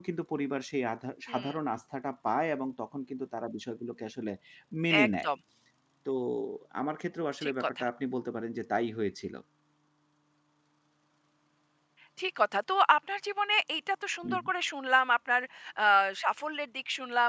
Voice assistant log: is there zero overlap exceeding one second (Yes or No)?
Yes